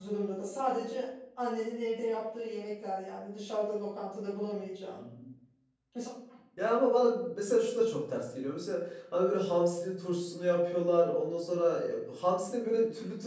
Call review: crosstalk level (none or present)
none